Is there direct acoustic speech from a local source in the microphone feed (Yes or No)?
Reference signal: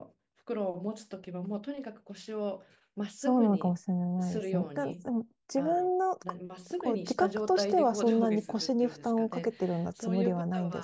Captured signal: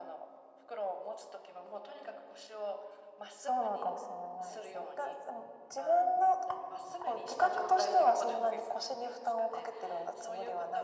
No